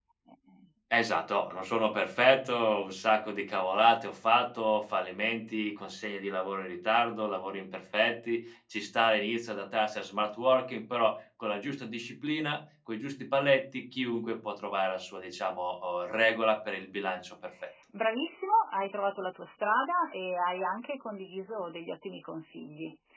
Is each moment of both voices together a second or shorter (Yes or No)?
Yes